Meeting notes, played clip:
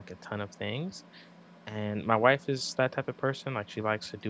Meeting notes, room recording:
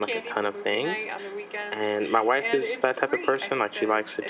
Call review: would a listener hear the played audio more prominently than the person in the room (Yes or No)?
Yes